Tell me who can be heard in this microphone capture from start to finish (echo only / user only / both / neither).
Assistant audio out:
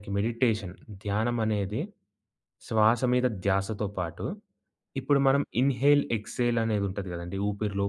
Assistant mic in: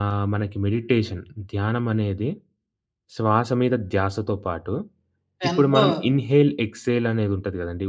both